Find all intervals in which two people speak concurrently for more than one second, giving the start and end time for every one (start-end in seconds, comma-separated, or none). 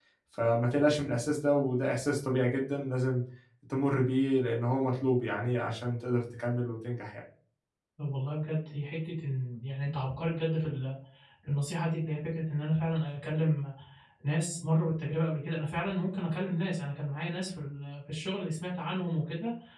none